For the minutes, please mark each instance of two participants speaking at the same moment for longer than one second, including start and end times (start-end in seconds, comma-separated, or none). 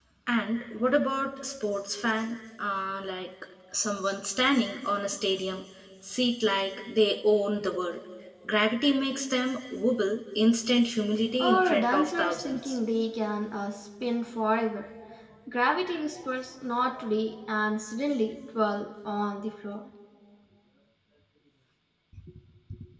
11.4-12.8